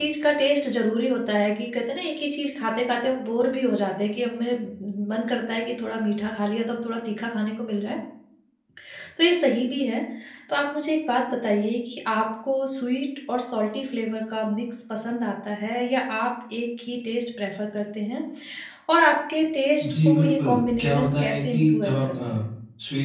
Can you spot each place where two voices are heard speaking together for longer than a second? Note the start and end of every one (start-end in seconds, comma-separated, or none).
19.9-22.4